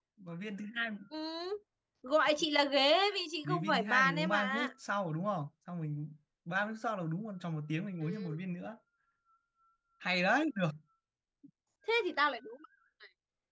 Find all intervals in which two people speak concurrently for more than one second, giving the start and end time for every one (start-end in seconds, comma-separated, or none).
3.4-4.7